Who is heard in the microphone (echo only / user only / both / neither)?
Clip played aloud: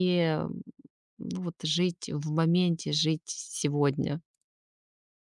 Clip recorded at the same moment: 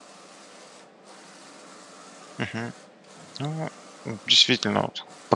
user only